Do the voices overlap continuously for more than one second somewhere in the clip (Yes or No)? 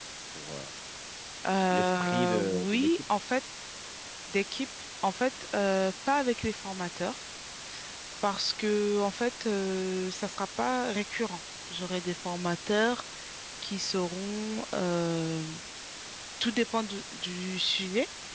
Yes